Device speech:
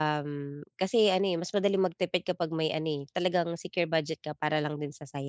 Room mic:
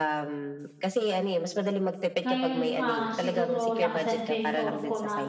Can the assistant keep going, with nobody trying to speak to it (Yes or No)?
No